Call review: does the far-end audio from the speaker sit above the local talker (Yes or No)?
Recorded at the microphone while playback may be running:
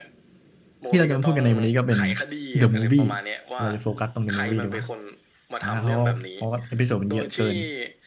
No